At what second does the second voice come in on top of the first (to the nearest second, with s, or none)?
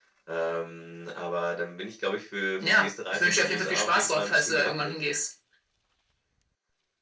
3 s